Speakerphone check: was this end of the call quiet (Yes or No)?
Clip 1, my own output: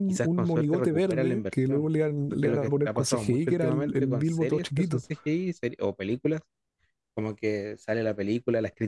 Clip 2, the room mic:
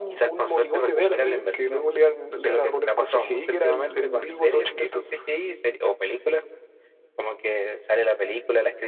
Yes